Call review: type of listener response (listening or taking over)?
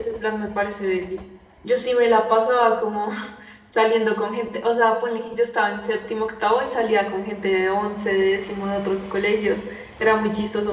listening